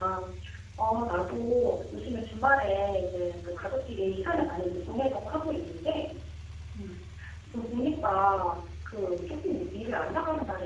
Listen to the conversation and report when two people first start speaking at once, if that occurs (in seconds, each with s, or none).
none